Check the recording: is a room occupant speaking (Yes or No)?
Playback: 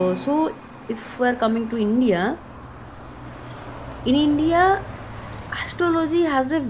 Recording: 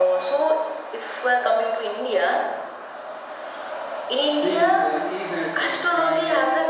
Yes